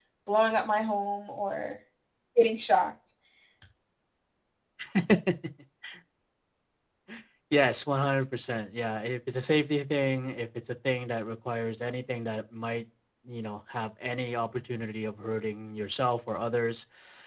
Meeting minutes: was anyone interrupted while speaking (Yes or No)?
No